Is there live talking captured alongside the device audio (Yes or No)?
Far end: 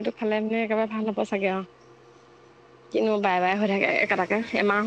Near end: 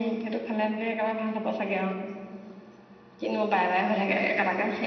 No